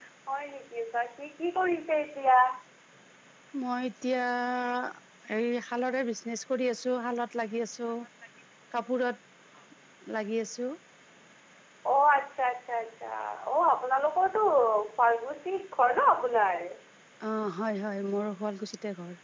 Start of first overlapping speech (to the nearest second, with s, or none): none